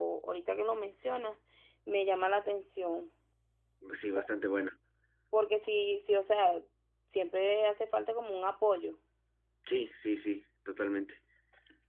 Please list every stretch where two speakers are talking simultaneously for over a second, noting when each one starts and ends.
none

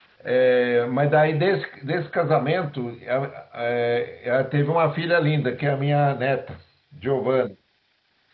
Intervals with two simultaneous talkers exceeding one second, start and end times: none

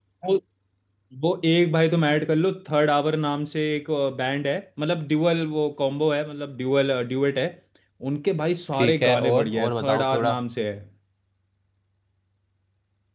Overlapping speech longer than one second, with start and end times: 8.8-10.3

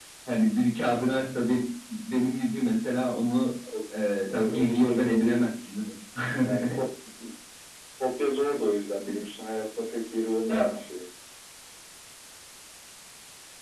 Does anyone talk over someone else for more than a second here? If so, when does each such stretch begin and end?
4.3-5.6

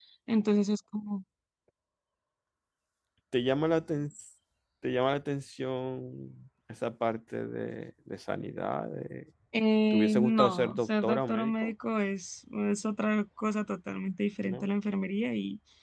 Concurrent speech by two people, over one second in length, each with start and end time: 9.9-11.7

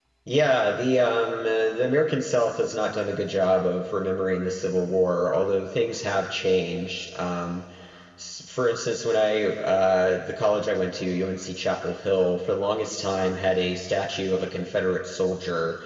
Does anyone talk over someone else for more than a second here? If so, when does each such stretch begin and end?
none

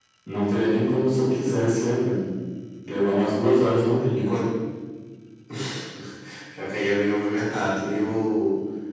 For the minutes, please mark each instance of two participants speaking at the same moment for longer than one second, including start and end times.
none

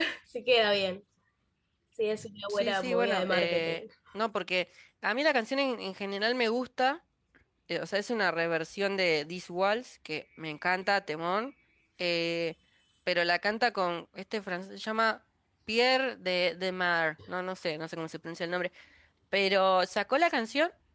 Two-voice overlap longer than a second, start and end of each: 2.5-3.8

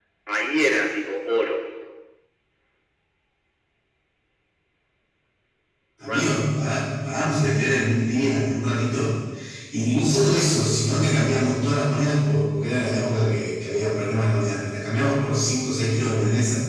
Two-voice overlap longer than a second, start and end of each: none

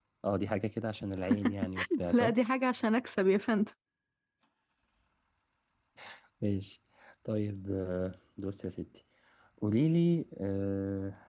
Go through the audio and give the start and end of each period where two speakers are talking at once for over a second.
none

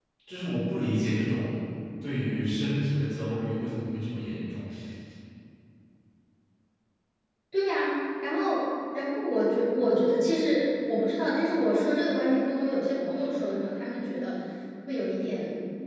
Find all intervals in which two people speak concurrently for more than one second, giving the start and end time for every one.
none

